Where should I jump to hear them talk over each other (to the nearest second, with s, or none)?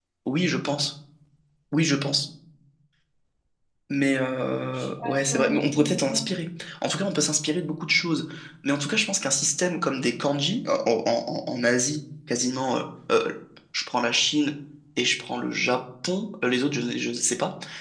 5 s